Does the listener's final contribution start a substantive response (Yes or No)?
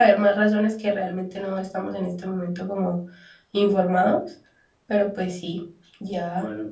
Yes